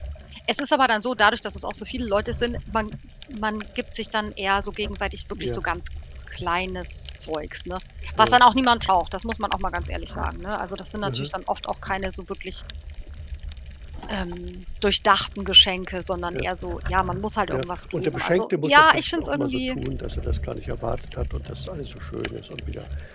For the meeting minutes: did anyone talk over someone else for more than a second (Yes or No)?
Yes